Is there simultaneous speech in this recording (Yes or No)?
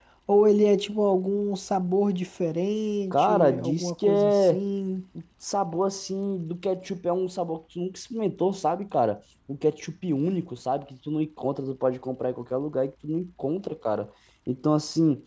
Yes